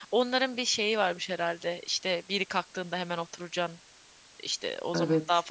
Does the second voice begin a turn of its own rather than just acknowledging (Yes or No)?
No